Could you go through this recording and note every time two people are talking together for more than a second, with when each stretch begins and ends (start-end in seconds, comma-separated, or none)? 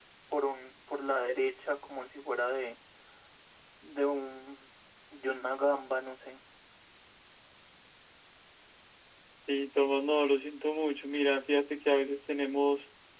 none